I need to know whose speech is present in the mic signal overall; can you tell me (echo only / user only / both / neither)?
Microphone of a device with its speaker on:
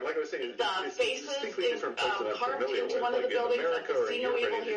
echo only